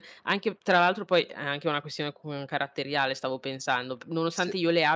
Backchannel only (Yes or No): Yes